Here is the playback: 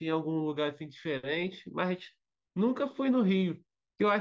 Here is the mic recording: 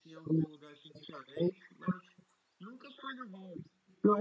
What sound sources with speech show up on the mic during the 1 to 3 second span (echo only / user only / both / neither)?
echo only